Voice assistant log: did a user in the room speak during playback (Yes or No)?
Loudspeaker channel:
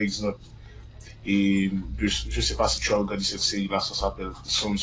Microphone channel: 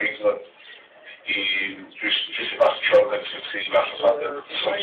Yes